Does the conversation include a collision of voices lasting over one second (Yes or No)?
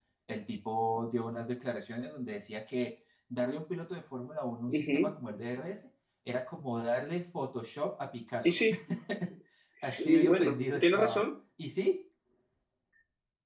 Yes